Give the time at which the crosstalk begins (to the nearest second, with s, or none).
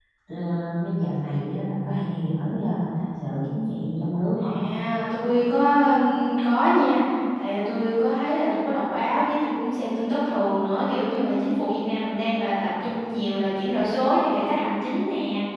none